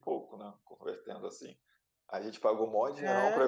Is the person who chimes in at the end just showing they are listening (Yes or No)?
Yes